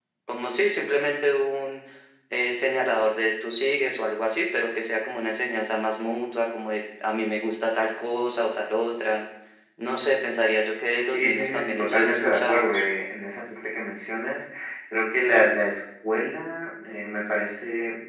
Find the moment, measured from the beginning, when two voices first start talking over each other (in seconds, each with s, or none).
11.1 s